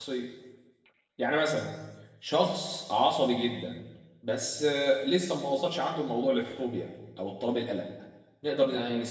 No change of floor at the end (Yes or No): Yes